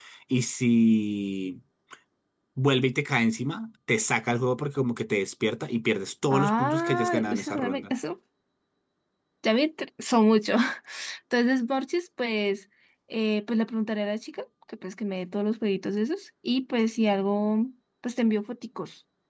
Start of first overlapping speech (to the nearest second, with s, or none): 6 s